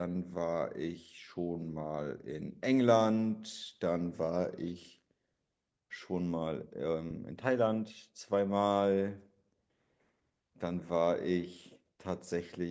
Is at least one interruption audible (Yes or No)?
No